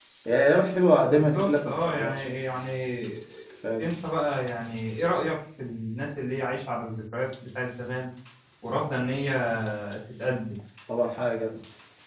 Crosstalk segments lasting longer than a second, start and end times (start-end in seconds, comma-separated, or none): 1.1-2.3